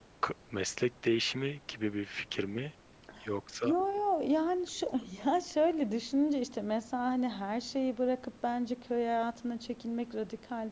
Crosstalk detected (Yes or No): No